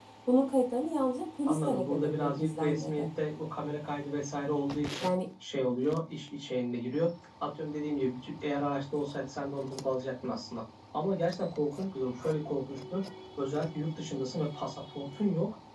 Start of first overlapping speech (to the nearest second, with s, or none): 1 s